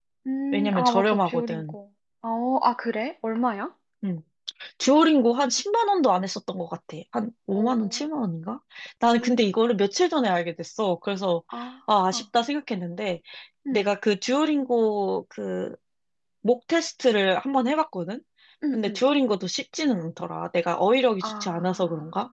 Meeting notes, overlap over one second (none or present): present